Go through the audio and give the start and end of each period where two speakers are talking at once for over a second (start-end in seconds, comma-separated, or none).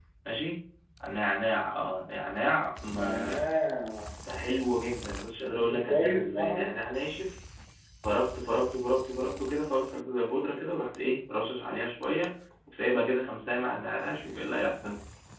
5.5-6.8